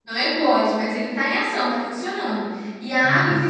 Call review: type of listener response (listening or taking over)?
listening